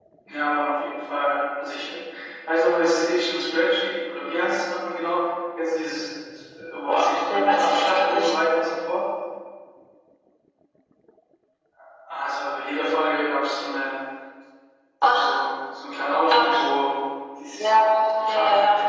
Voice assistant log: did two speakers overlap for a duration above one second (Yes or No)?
Yes